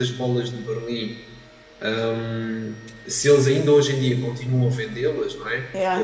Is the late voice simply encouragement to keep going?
Yes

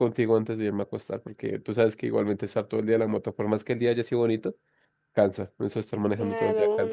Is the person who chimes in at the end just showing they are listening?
No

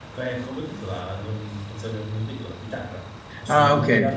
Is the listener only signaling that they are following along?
Yes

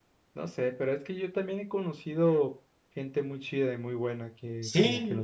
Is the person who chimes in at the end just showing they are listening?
No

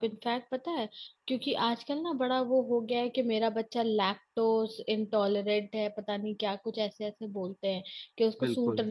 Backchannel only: Yes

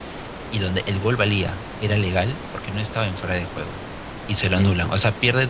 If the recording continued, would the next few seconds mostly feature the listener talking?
No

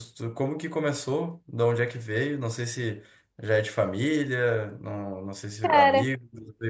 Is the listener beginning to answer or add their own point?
No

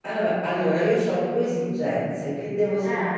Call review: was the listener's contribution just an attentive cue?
Yes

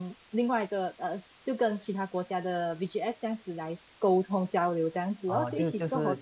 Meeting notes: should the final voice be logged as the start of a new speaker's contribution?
Yes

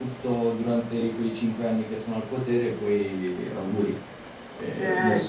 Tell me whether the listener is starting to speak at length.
Yes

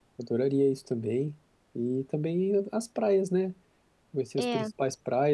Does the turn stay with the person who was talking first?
Yes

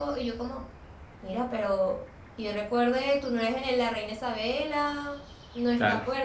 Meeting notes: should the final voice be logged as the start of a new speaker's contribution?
No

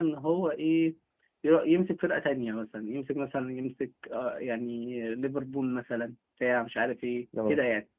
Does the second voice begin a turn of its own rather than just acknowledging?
No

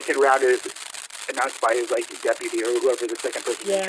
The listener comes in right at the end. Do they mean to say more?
Yes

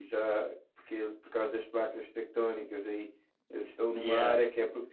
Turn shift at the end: No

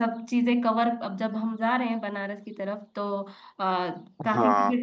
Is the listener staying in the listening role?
Yes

